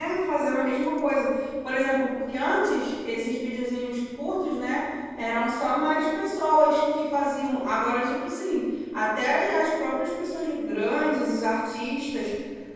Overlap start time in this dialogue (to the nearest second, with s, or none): none